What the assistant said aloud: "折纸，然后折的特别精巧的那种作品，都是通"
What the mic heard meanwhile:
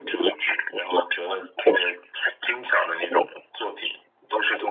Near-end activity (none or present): none